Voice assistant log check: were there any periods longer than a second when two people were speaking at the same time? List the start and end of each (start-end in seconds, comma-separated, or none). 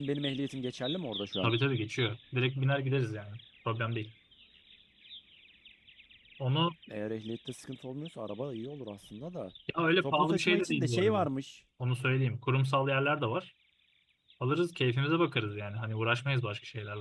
10.0-11.3